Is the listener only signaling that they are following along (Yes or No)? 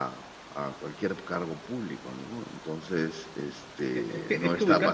No